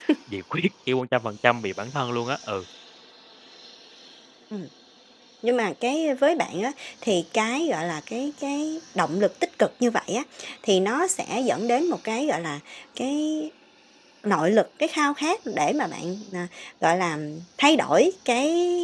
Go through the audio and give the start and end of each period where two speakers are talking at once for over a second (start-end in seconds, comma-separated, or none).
none